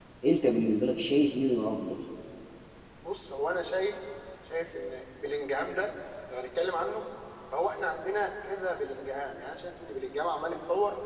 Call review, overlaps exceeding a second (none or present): none